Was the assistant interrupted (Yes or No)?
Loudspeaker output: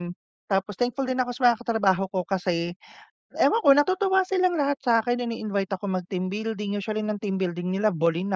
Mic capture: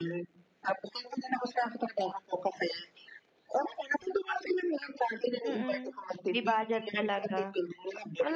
Yes